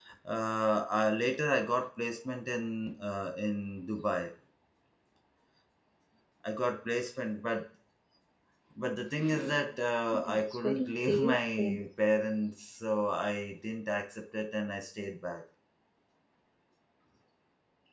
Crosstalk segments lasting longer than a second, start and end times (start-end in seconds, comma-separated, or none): 10.1-11.8